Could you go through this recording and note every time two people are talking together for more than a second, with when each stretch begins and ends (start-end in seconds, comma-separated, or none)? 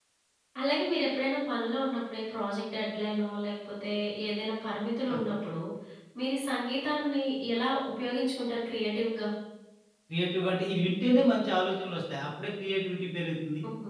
none